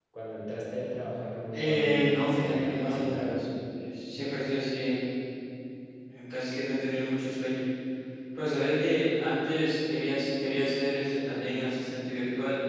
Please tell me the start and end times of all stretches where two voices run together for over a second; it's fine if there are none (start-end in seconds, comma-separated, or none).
1.5-3.4